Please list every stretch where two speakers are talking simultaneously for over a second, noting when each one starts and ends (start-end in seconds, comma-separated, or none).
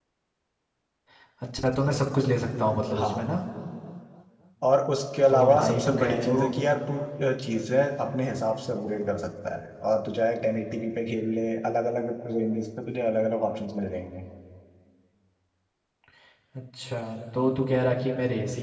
5.3-6.5